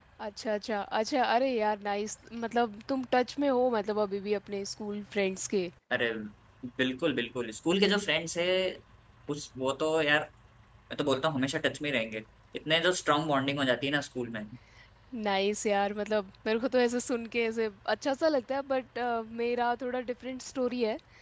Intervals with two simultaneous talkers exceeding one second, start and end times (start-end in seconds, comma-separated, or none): none